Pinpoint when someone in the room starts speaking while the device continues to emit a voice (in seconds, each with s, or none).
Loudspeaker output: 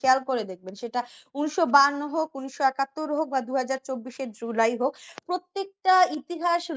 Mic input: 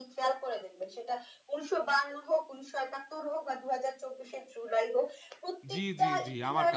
5.7 s